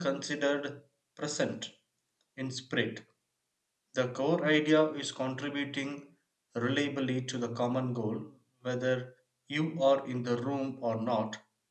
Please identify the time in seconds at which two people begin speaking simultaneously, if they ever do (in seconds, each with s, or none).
none